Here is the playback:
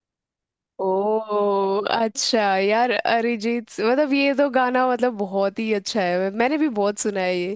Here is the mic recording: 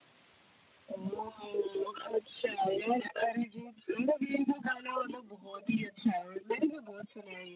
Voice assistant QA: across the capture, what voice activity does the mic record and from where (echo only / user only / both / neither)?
echo only